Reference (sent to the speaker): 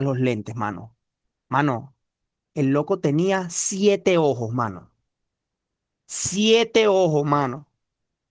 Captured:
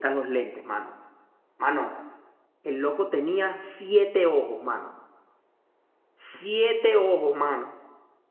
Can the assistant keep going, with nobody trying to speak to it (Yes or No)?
Yes